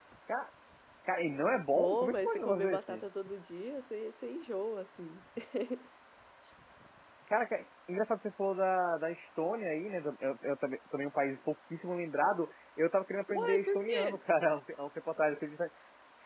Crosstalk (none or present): present